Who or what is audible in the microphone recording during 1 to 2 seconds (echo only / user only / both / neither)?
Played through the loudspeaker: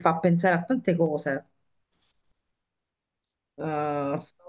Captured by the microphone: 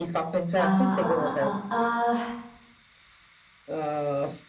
both